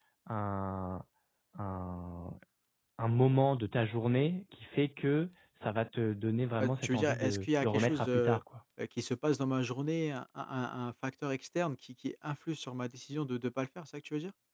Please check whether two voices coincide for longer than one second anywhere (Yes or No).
Yes